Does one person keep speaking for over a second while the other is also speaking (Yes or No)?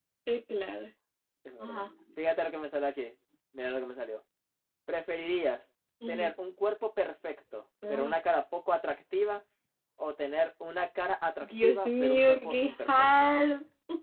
Yes